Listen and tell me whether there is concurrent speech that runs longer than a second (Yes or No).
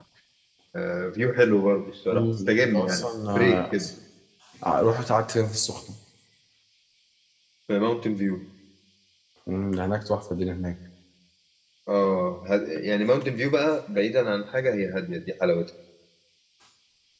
Yes